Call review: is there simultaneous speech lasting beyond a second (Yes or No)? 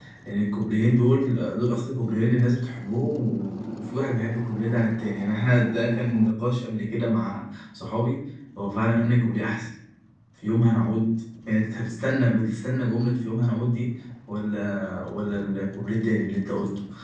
No